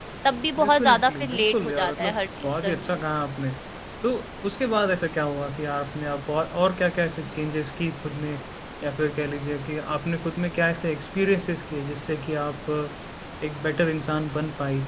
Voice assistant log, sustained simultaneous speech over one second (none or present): present